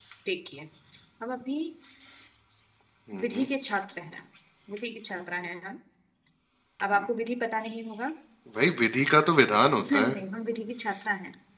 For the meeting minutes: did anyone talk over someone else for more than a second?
No

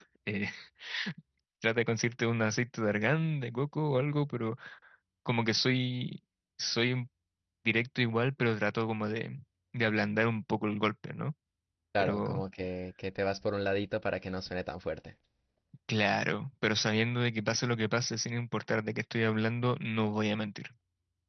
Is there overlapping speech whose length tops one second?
No

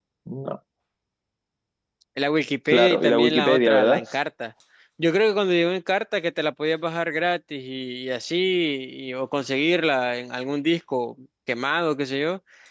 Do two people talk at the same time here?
Yes, from 2.7 s

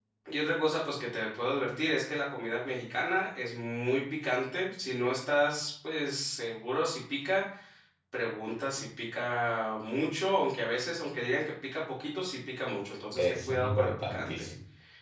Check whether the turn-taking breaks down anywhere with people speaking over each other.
Yes, from 13.2 s

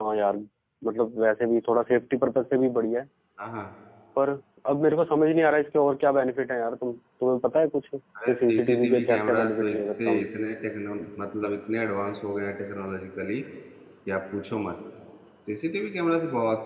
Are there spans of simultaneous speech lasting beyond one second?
Yes, from 8.2 s

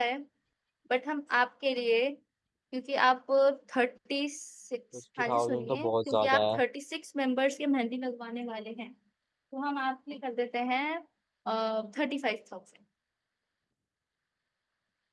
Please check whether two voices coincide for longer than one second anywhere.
Yes, from 5.2 s

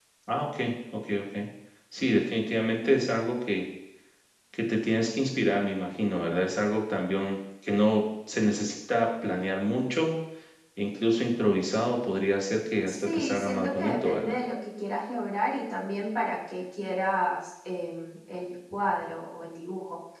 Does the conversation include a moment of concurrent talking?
Yes, from 12.9 s

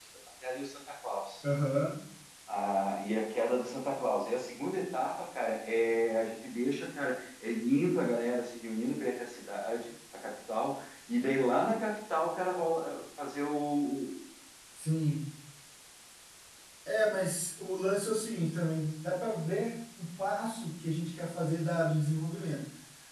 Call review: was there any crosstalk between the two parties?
No

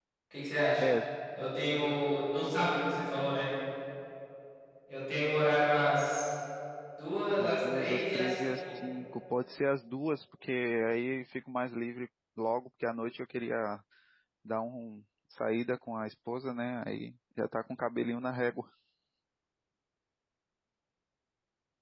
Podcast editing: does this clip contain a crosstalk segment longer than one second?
Yes, from 7.4 s

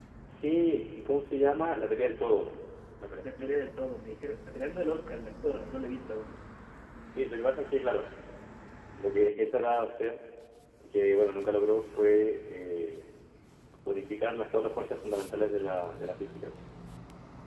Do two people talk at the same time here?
No

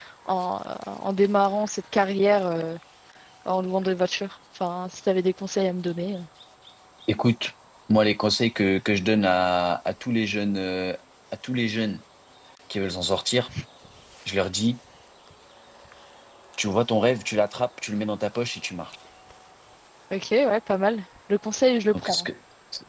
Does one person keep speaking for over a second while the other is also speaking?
No

